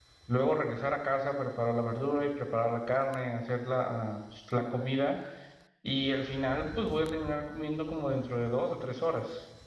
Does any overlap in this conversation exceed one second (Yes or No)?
No